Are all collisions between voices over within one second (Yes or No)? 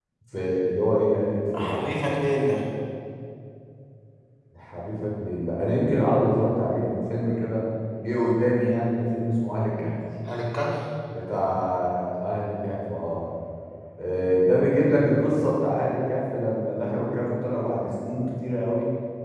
Yes